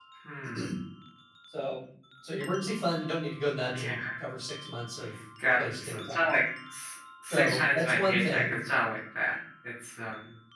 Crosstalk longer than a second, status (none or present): present